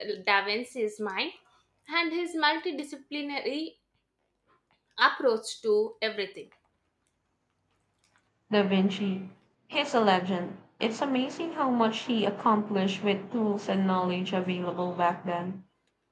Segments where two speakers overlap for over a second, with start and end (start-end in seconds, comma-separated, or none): none